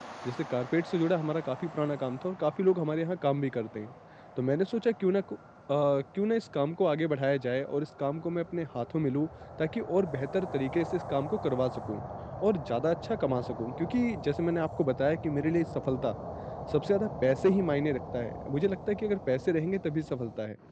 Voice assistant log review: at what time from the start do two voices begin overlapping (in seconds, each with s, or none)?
none